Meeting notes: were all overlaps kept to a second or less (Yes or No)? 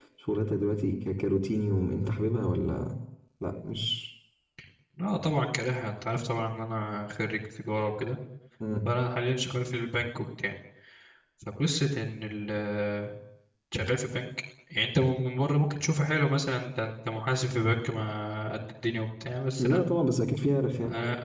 Yes